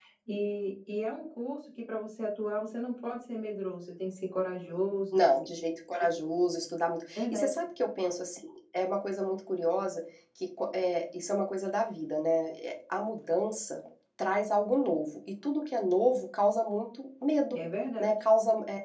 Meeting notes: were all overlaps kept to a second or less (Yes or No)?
Yes